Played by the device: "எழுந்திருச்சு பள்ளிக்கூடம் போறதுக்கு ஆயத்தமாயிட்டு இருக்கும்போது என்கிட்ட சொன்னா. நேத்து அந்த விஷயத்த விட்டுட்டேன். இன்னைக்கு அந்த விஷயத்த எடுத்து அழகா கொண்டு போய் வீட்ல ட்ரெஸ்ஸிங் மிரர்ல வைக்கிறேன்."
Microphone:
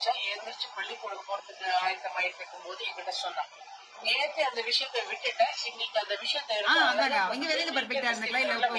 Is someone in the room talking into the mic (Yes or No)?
Yes